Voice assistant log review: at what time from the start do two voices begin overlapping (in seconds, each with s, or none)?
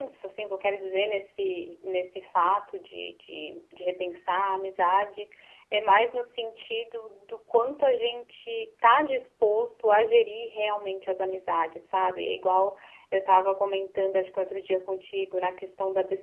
none